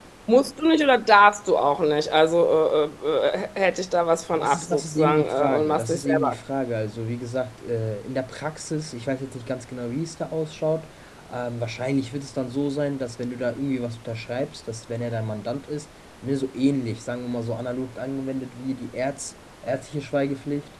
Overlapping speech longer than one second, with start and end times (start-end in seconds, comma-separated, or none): 4.3-6.4